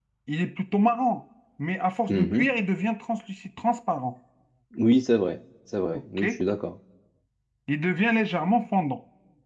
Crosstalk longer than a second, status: none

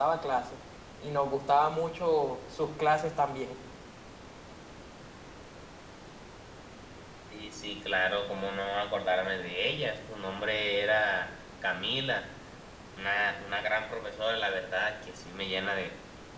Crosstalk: none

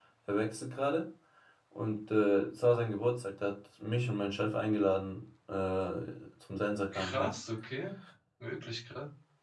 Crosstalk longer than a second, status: none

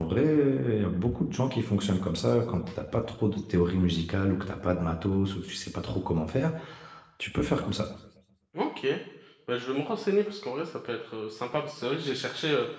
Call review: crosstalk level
none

